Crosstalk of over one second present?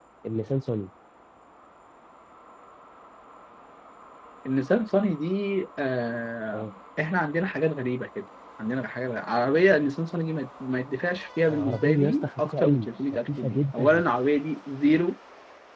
Yes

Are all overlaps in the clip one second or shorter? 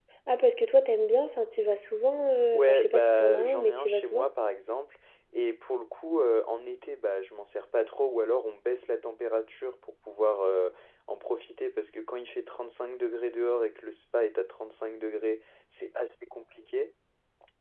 No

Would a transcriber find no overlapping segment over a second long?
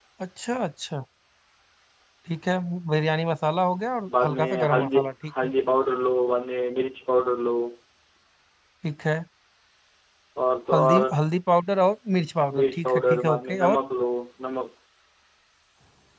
No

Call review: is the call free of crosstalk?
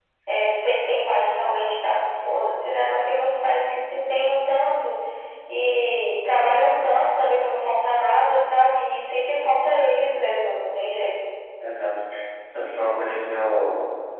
Yes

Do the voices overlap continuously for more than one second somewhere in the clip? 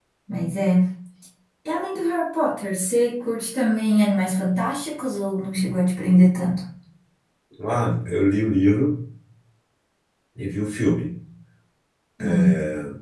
No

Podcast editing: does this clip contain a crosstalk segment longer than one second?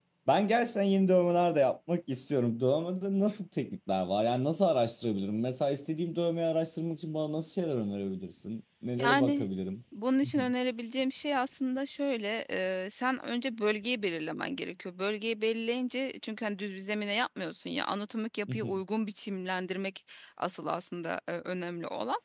No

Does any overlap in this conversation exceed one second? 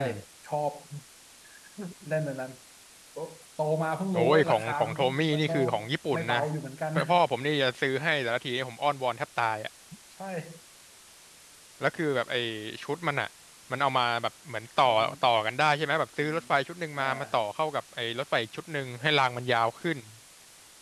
Yes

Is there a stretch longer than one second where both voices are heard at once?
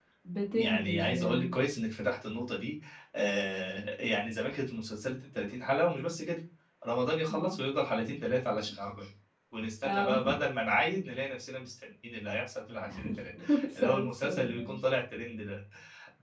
Yes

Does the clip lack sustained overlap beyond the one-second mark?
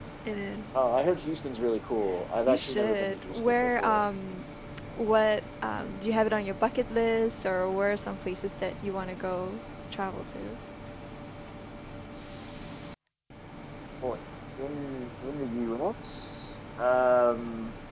No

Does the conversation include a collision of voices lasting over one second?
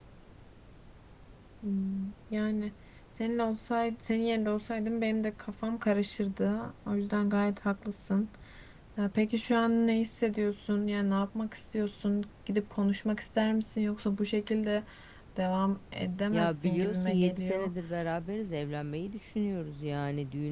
Yes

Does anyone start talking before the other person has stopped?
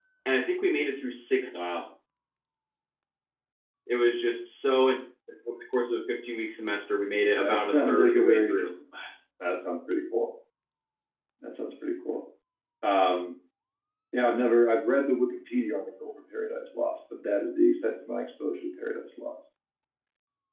Yes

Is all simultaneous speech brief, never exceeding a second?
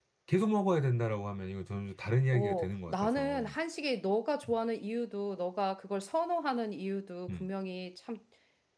No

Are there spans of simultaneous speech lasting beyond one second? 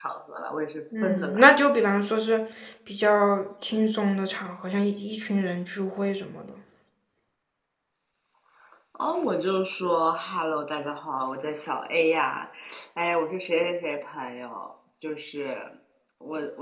No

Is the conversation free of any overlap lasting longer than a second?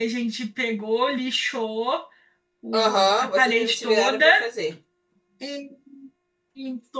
No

